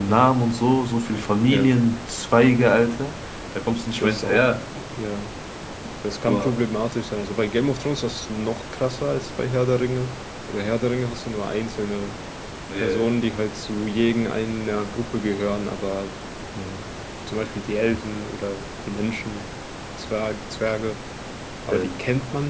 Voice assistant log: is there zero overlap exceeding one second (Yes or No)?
Yes